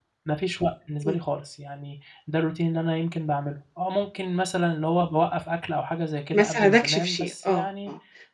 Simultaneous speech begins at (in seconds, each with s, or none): 6.3 s